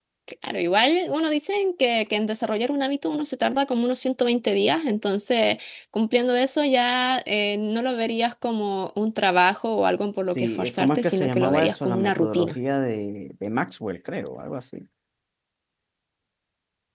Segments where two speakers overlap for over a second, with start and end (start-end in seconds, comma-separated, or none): 10.2-12.6